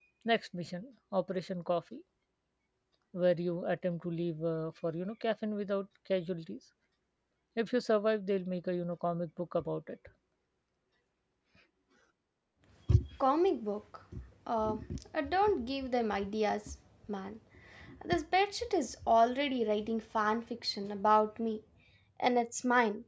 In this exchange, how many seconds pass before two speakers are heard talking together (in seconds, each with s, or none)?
none